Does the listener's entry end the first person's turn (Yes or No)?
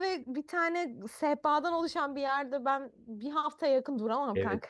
Yes